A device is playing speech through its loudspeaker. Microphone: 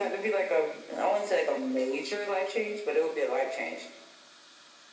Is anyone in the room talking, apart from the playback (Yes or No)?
No